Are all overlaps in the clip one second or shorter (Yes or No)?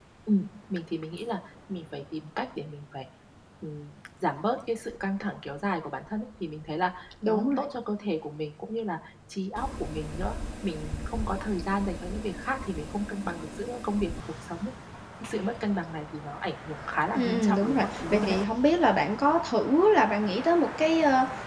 No